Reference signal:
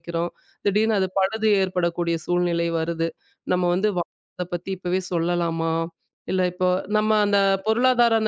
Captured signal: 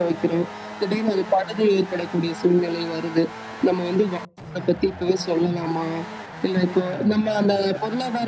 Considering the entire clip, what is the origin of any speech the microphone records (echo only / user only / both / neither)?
echo only